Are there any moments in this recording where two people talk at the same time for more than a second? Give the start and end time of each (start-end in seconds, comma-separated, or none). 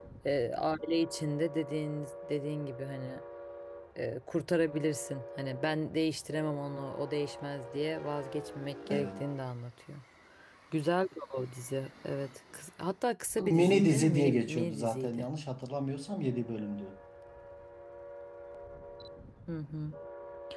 13.5-15.3